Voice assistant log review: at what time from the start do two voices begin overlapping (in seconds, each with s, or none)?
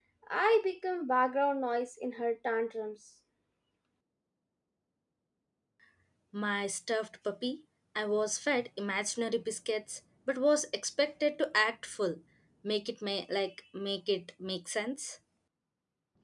none